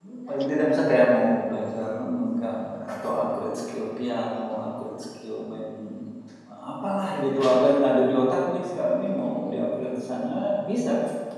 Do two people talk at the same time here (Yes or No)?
No